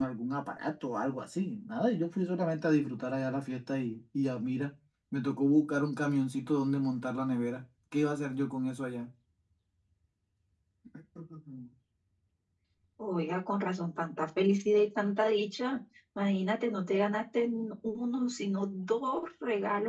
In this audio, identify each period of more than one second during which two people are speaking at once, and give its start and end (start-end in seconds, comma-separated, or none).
none